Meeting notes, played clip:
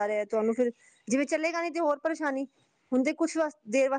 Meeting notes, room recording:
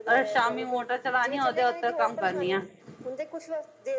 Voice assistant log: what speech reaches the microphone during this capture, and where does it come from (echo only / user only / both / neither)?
both